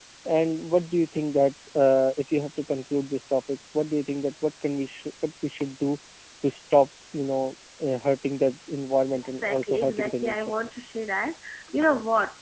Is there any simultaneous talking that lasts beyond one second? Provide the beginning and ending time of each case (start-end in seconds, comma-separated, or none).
9.1-10.5